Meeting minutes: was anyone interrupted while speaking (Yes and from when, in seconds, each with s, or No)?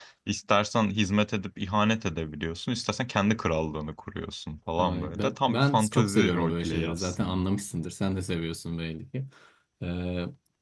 Yes, from 4.8 s